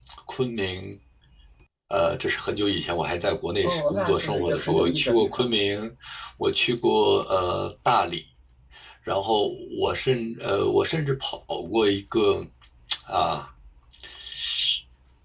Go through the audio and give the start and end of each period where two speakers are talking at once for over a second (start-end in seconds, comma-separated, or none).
3.6-5.5